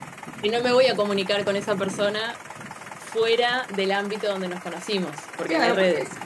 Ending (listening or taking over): taking over